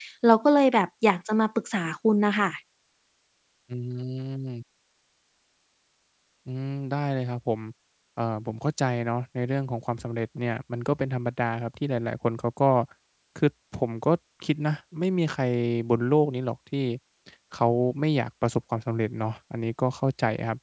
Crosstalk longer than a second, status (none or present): none